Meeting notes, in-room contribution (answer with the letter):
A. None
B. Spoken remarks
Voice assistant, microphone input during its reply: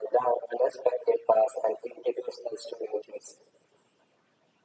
A